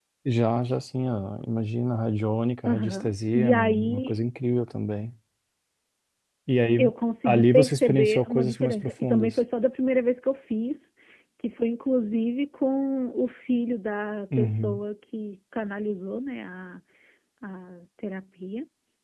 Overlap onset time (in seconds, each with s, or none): 2.6 s